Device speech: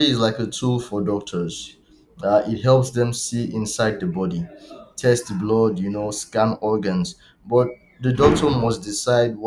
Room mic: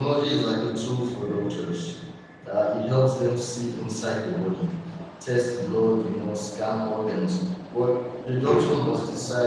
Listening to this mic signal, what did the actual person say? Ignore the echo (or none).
none